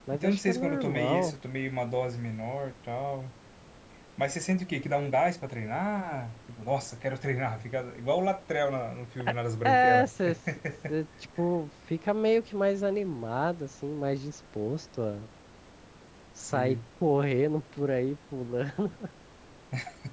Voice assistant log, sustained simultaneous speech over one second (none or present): present